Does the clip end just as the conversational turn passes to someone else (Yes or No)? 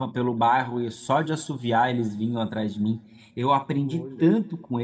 No